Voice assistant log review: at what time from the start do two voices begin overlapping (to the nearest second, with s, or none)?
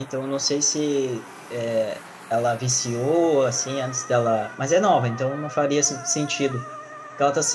none